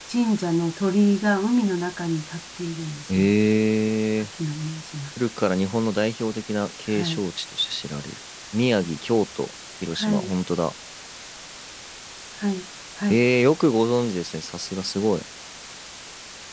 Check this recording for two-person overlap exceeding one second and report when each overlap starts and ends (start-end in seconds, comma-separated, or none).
none